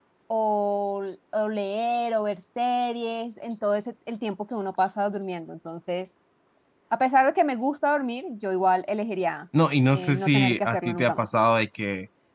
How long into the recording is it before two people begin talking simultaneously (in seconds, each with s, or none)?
9.9 s